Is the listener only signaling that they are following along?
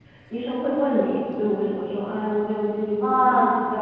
No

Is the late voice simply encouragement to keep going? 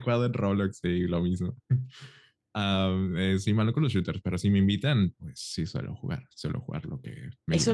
No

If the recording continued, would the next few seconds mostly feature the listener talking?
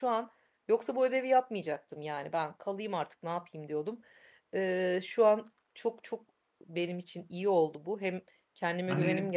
Yes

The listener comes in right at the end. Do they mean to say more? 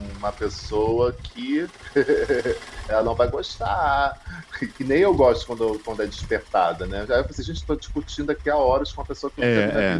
Yes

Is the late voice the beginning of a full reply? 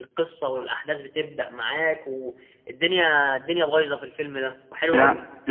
Yes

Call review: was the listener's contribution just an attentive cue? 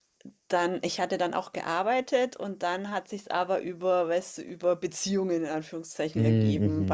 Yes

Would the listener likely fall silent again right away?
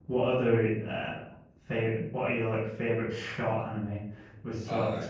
Yes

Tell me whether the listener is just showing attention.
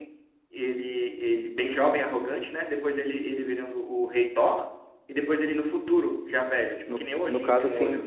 No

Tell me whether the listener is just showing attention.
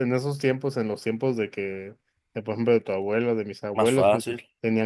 Yes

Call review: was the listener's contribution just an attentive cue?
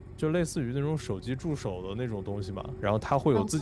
Yes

